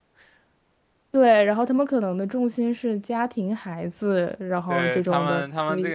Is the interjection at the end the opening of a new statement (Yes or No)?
Yes